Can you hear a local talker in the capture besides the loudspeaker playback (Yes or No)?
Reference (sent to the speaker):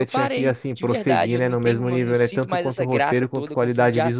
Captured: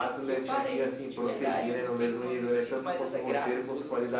No